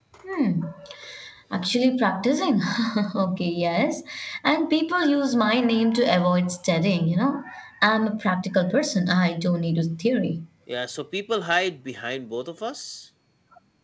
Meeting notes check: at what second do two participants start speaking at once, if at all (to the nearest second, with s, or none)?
none